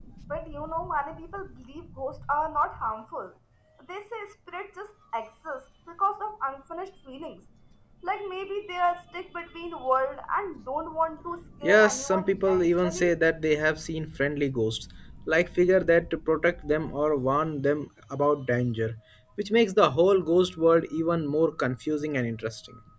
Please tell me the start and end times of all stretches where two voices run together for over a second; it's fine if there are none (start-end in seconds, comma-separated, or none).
11.6-13.1